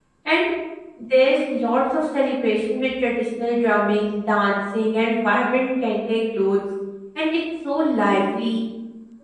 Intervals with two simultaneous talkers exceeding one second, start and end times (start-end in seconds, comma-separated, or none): none